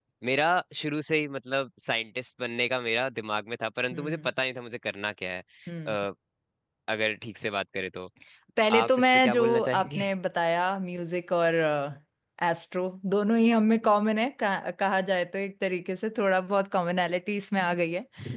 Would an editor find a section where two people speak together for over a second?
Yes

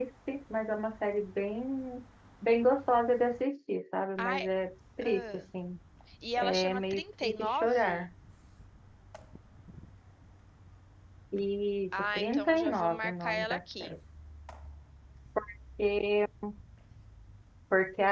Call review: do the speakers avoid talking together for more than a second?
No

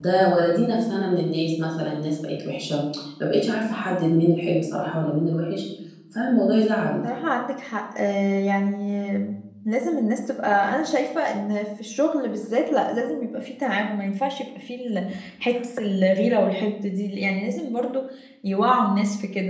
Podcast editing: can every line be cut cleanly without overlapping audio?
Yes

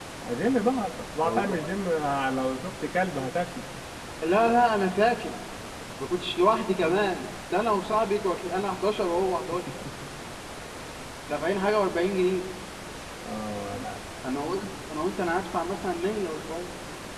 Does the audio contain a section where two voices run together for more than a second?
No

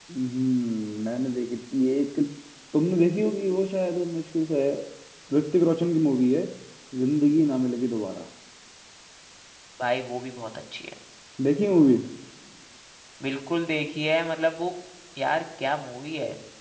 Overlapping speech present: No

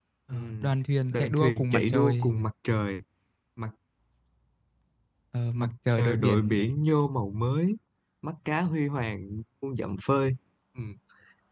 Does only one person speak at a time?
No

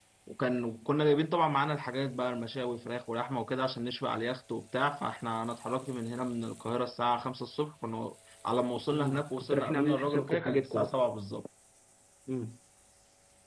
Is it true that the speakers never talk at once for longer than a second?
No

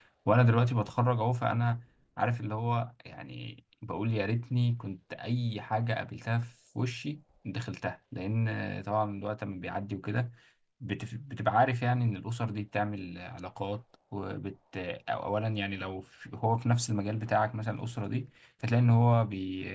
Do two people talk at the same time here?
No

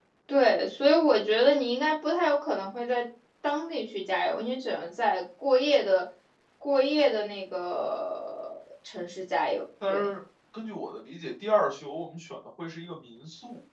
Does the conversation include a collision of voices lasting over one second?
No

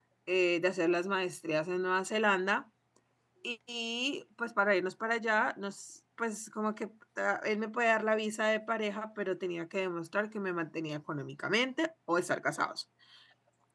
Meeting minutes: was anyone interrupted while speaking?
No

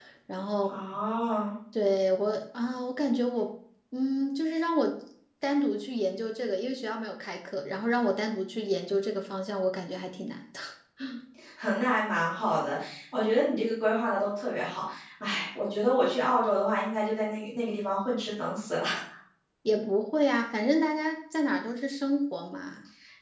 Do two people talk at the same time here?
No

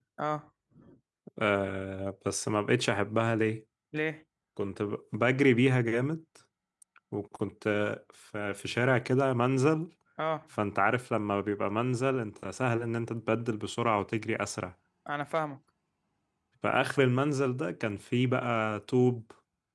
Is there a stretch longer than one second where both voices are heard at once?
No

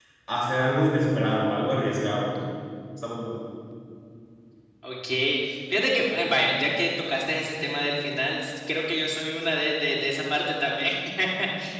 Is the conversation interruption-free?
Yes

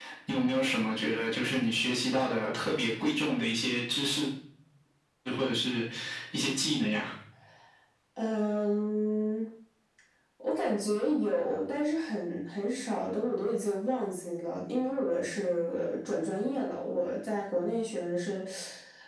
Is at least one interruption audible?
No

